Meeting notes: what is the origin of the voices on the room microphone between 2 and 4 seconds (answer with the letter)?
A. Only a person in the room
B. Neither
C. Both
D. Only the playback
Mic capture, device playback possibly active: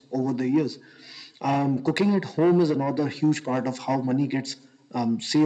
D